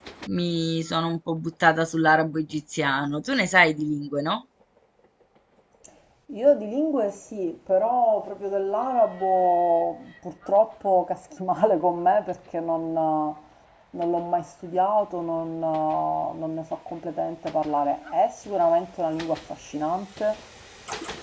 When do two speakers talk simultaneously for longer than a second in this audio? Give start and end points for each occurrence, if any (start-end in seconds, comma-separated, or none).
none